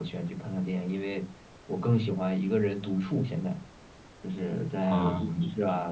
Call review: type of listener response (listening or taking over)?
listening